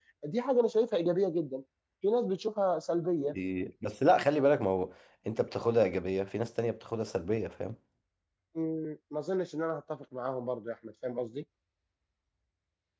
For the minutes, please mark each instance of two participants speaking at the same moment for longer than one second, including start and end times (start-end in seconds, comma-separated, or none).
none